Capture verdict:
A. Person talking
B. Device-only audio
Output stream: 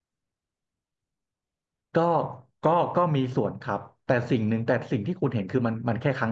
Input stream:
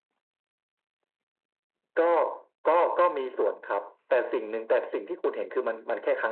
B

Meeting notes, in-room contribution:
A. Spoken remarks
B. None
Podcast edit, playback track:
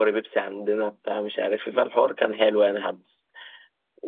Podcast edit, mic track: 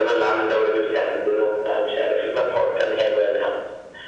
B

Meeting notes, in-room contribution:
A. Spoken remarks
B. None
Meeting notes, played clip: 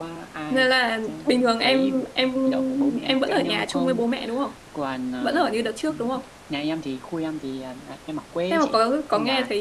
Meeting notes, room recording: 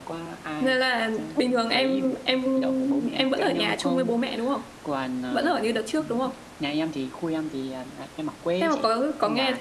B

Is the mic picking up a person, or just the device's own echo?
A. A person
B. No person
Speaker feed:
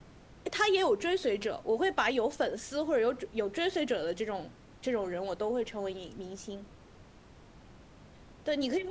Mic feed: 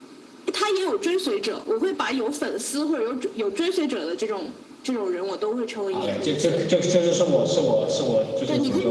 A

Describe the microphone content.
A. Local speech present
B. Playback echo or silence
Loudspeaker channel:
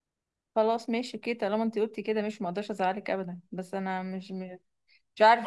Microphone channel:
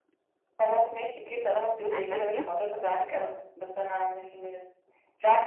A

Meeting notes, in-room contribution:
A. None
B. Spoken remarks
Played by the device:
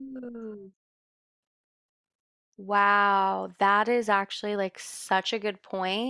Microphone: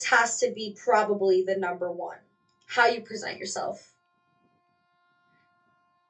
B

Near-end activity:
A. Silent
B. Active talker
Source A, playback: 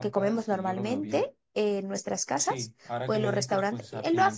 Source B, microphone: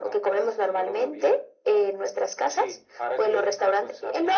A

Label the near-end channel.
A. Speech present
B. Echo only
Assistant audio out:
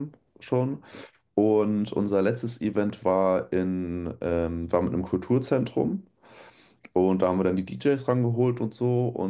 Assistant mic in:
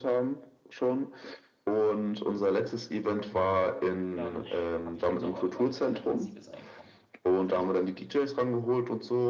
A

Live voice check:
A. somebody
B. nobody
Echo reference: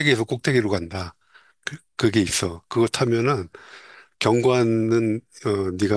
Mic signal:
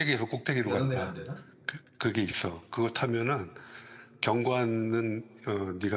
A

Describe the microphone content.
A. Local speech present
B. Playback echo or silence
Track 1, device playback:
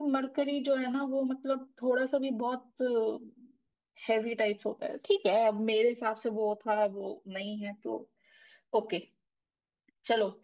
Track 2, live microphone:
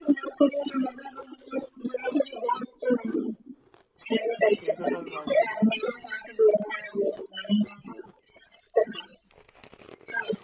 A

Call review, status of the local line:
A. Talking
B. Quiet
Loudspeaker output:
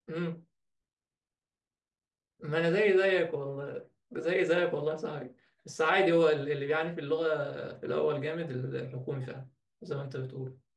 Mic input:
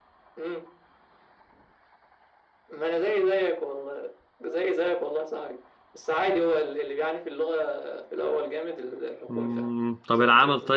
A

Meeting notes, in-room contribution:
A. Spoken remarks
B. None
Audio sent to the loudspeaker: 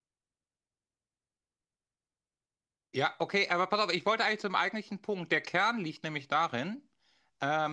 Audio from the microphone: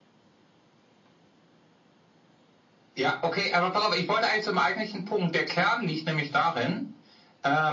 B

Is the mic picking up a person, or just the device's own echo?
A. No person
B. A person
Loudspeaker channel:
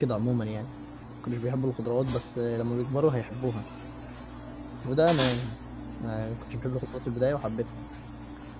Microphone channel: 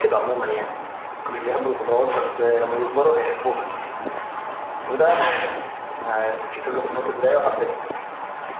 A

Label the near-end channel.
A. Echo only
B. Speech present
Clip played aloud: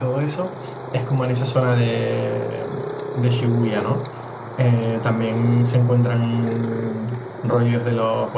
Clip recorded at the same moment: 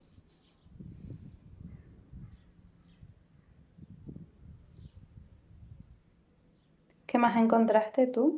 B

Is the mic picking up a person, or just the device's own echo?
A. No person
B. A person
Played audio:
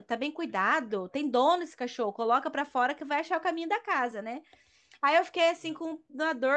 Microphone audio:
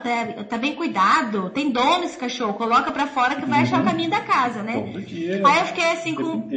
B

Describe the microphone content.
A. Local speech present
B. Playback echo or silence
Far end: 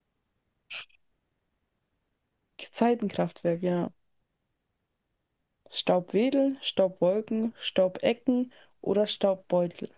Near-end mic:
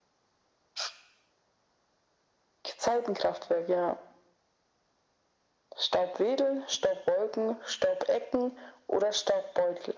B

